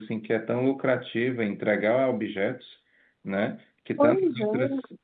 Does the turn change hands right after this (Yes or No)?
No